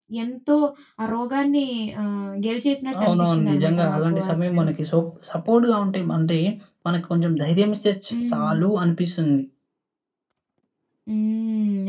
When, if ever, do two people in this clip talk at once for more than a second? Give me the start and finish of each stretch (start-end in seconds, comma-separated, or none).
3.0-4.7